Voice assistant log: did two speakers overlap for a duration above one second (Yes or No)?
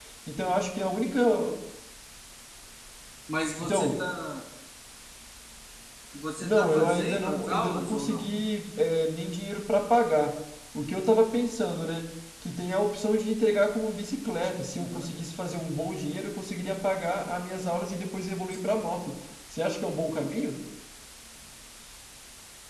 Yes